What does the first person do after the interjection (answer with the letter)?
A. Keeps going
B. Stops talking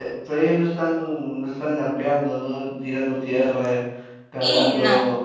B